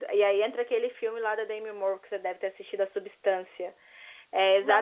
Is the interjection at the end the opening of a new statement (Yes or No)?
No